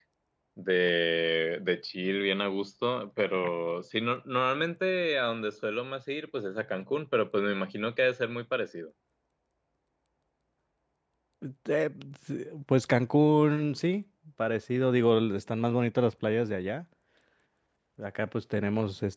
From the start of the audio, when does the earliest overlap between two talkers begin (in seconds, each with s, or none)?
none